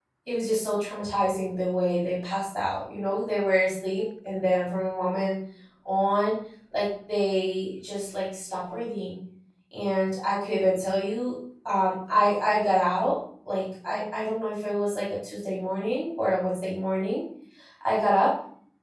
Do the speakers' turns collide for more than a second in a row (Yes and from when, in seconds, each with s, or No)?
No